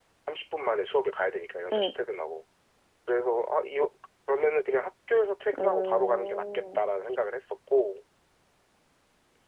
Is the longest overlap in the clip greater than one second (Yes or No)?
Yes